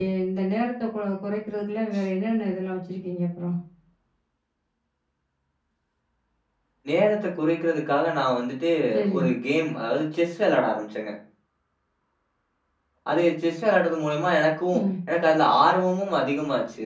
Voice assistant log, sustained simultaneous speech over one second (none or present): none